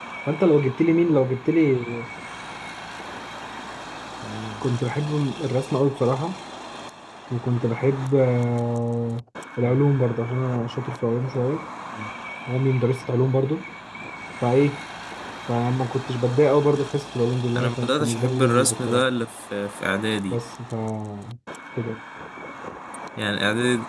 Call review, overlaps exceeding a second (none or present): present